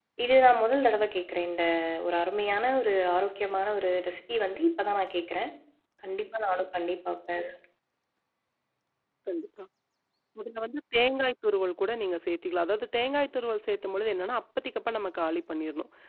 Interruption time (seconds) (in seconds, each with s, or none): none